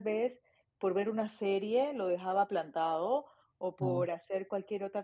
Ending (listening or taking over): listening